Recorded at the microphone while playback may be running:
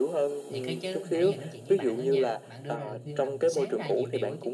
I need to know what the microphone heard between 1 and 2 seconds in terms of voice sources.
both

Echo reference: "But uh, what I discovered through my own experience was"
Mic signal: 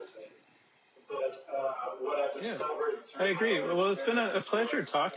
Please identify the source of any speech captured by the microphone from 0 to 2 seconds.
echo only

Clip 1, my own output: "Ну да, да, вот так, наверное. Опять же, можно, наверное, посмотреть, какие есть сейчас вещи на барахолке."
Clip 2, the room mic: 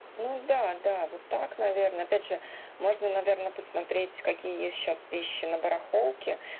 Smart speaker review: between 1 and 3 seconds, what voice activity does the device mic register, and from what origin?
echo only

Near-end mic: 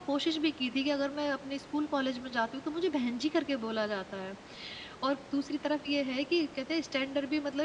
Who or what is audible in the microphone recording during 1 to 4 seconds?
echo only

